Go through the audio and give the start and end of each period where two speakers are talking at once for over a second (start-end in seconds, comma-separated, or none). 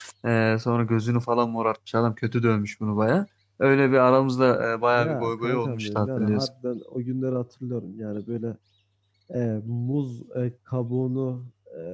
4.9-6.5